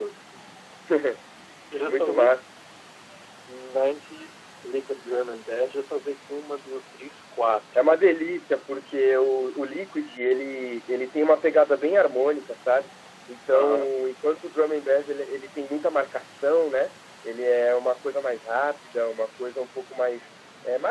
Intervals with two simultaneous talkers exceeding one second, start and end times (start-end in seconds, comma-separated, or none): none